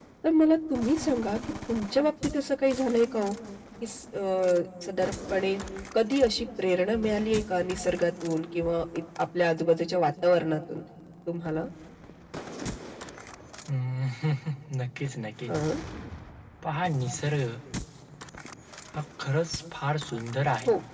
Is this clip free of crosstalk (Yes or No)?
Yes